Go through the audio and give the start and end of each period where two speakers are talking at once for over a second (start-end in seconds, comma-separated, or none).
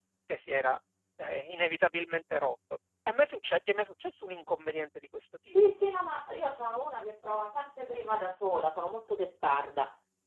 none